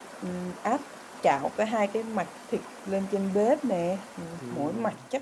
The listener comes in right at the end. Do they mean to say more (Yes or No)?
No